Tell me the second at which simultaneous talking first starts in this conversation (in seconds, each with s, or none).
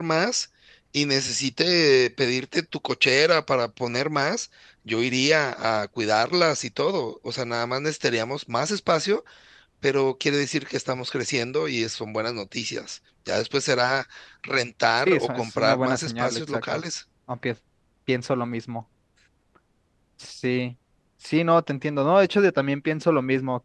15.0 s